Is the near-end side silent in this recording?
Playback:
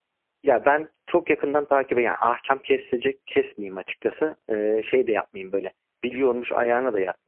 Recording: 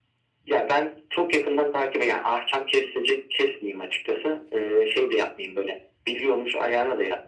Yes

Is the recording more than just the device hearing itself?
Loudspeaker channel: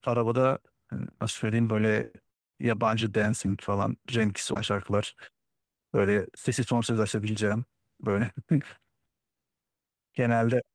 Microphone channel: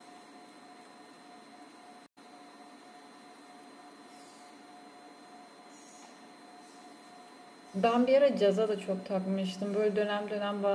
Yes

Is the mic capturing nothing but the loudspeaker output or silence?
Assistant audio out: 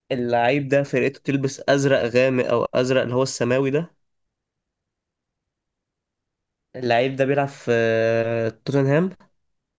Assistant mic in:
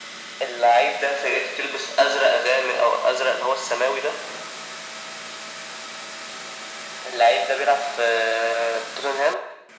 Yes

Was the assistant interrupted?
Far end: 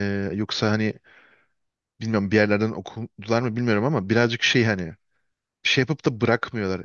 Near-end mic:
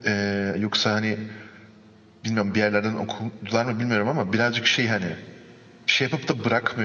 No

